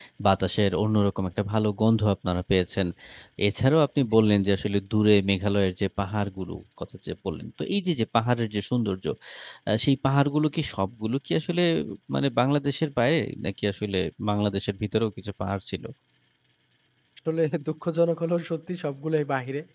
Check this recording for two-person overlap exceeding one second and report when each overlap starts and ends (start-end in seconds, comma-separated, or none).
none